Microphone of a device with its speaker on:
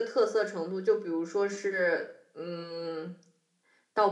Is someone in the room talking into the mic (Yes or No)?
No